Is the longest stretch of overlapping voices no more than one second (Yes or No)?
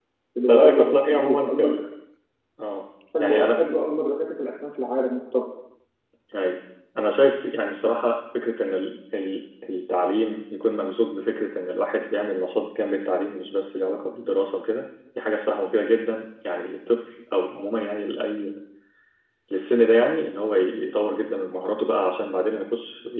No